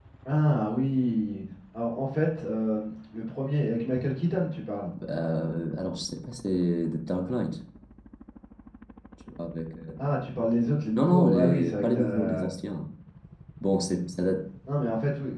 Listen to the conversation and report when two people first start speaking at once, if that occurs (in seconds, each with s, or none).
10.9 s